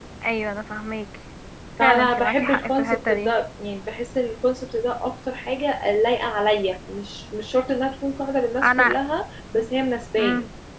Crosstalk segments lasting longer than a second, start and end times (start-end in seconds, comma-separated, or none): 1.8-3.3